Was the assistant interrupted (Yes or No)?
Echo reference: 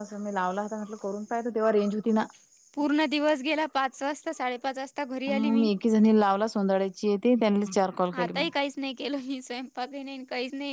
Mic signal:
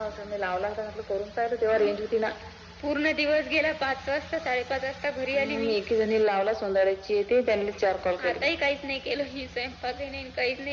No